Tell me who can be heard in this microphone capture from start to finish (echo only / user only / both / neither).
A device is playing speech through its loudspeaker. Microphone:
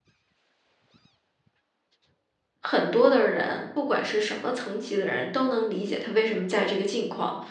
user only